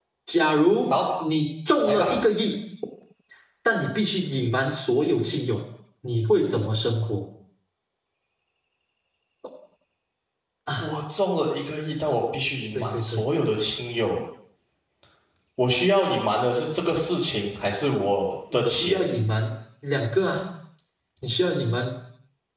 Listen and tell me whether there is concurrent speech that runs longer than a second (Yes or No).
No